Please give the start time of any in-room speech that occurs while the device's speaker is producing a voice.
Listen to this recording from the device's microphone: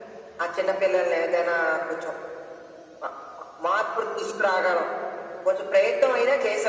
none

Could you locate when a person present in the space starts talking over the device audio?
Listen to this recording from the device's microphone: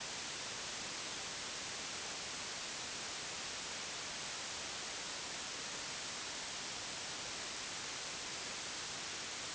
none

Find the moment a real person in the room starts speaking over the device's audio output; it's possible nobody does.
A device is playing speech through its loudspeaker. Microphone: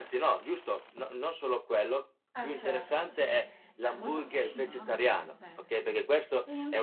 2.3 s

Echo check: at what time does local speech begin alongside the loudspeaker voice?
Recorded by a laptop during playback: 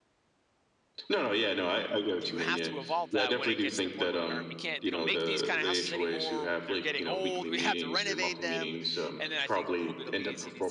2.2 s

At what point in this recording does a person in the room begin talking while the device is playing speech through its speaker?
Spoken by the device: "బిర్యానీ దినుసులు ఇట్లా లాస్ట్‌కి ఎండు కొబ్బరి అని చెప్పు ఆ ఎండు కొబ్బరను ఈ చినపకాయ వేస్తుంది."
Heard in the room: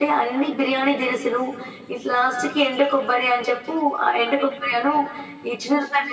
none

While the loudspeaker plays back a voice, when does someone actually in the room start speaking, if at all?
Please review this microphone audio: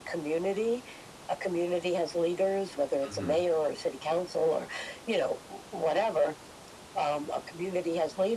3.1 s

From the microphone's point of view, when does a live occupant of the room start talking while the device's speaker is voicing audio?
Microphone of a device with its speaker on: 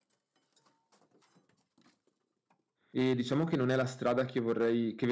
2.9 s

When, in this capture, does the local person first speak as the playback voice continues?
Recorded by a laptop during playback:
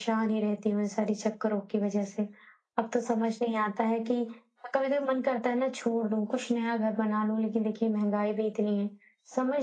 none

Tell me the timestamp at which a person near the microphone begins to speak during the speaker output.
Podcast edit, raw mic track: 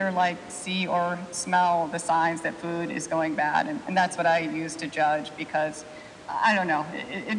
none

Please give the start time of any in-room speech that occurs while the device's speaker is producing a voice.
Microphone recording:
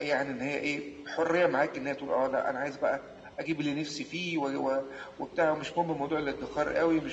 none

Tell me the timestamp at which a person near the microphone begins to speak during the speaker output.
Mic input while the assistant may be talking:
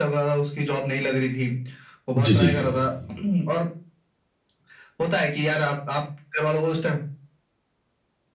2.2 s

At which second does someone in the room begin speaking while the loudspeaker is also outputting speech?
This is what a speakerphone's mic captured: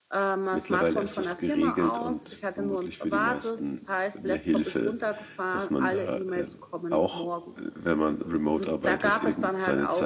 0.5 s

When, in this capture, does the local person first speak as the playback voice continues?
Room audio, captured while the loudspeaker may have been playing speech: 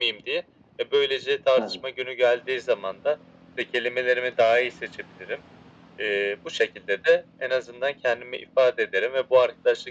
1.5 s

